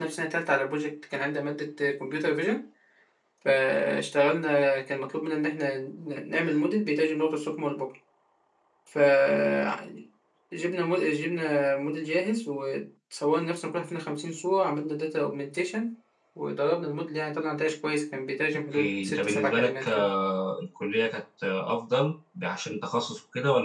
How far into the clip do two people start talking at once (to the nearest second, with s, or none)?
19 s